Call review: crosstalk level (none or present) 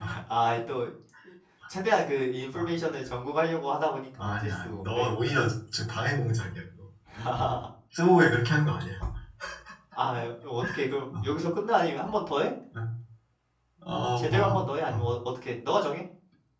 present